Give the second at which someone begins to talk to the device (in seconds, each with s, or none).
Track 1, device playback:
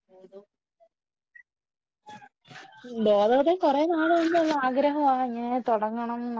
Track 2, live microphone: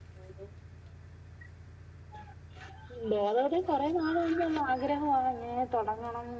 none